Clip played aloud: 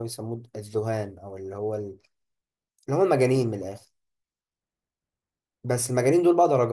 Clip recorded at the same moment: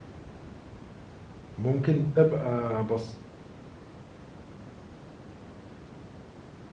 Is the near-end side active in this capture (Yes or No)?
Yes